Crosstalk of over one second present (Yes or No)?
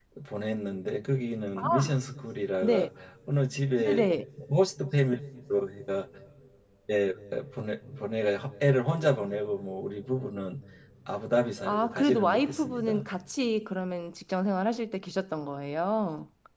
Yes